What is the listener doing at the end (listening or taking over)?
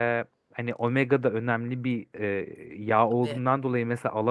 listening